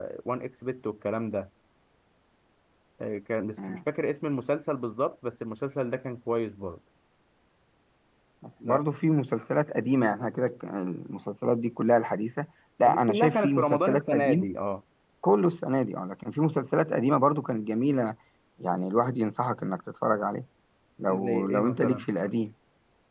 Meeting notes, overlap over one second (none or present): present